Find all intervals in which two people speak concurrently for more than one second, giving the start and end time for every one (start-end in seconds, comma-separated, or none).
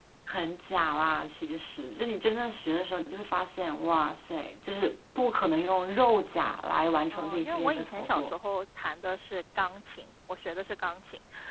7.1-8.3